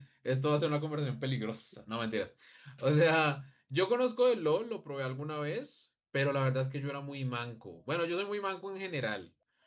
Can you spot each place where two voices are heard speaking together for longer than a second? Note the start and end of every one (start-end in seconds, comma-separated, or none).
none